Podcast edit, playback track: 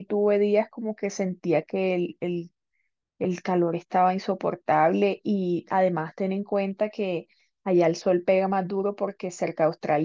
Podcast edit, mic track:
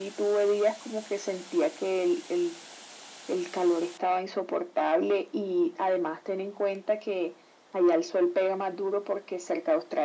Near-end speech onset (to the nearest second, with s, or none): none